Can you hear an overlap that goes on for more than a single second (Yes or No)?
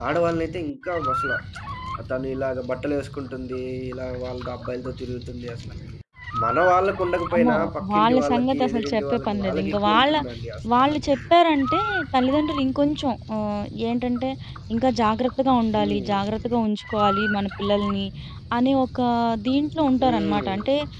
Yes